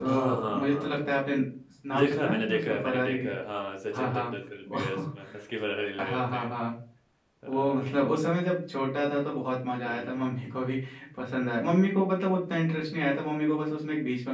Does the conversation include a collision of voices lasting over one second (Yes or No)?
Yes